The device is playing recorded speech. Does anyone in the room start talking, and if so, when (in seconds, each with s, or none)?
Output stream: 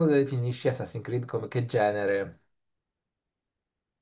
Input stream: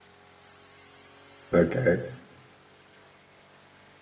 1.5 s